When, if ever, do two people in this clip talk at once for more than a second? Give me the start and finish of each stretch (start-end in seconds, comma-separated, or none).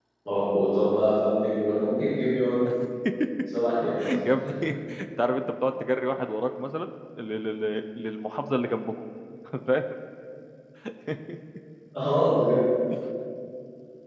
none